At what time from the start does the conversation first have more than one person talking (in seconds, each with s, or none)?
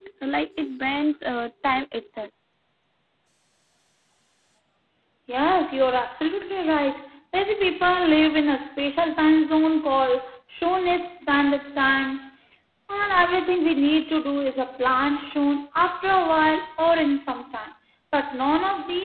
none